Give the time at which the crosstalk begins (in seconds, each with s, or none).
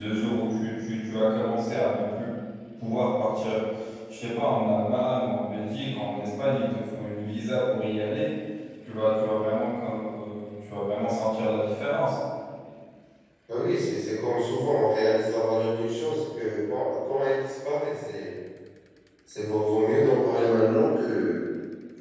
none